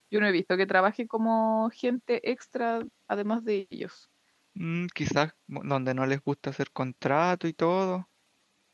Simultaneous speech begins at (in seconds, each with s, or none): none